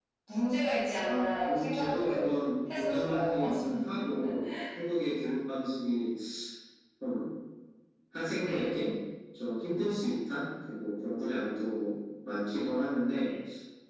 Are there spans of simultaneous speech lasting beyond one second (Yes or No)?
Yes